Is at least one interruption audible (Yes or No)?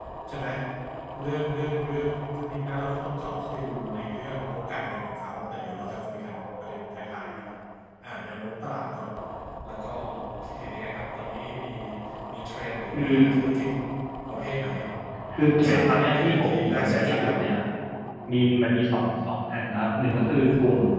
Yes